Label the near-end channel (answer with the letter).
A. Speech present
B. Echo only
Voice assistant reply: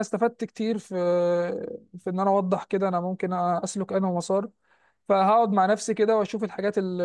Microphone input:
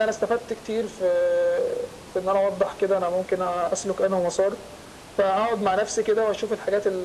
B